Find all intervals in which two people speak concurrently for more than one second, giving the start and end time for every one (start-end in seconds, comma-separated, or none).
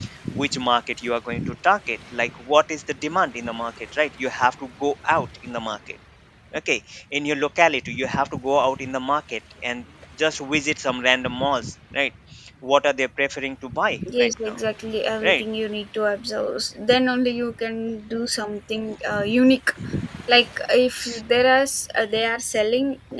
none